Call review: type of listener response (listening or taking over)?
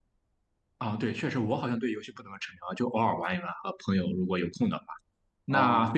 listening